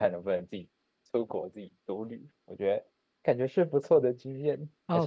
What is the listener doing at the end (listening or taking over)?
taking over